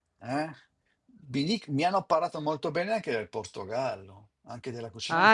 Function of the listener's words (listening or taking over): taking over